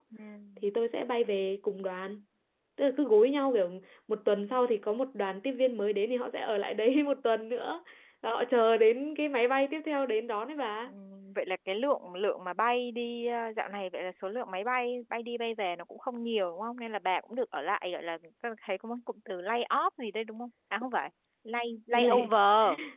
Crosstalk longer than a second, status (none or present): none